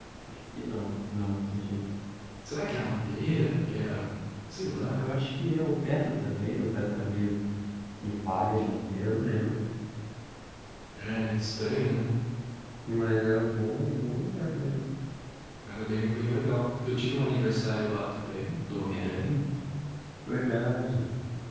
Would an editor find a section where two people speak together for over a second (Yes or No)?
No